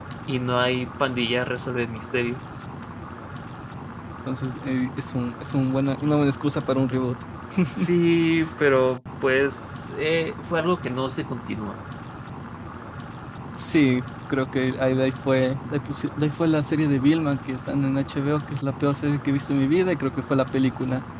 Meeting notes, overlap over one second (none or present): none